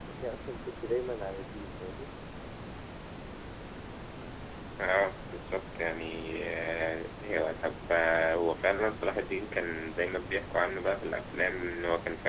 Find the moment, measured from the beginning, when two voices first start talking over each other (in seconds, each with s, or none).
none